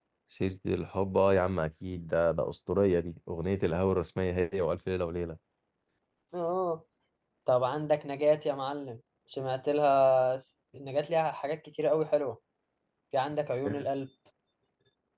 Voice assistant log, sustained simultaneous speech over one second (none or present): none